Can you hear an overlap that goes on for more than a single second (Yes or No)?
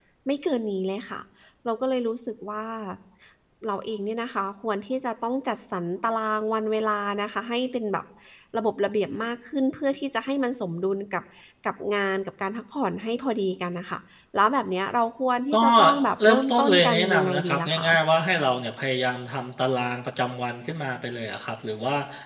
Yes